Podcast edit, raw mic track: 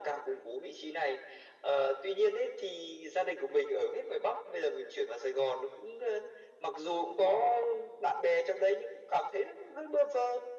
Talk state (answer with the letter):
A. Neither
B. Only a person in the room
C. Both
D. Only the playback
D